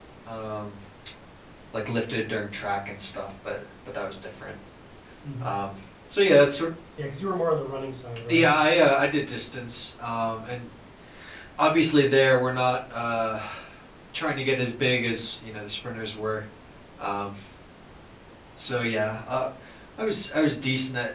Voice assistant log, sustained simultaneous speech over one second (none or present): none